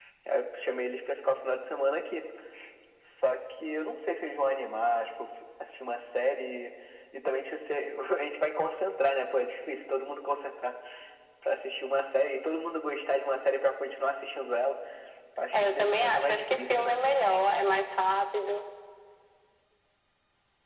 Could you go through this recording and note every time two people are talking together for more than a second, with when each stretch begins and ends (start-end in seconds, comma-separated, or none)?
15.5-17.0